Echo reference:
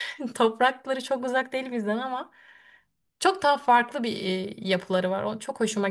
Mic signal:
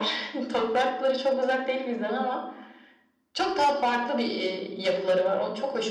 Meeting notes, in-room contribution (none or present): none